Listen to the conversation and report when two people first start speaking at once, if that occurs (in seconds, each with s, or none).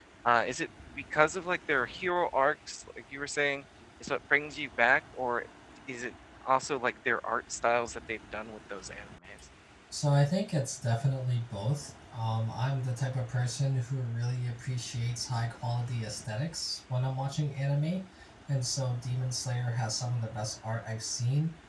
none